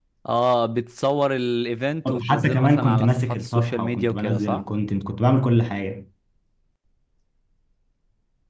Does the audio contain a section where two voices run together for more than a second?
Yes, from 2.0 s

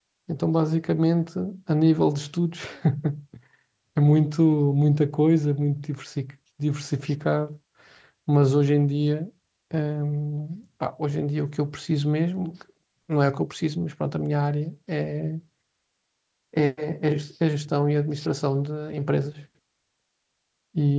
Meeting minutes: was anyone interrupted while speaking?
No

